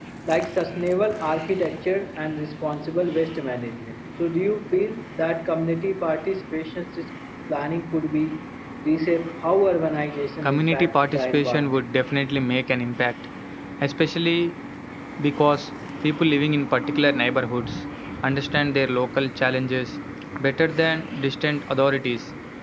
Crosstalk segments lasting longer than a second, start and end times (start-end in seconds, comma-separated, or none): 10.4-11.8